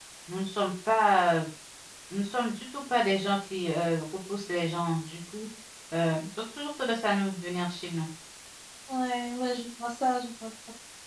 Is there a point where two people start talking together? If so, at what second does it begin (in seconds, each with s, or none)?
none